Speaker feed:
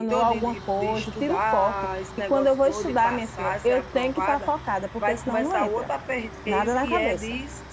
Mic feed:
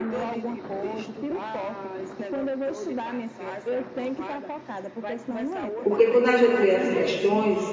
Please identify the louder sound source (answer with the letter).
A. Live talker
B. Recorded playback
A